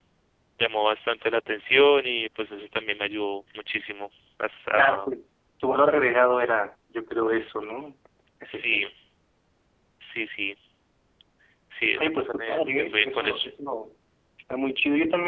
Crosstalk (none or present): present